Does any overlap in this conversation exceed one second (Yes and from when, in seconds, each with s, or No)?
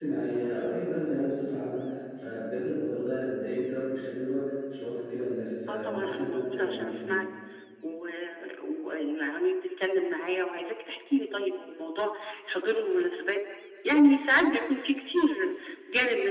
Yes, from 5.7 s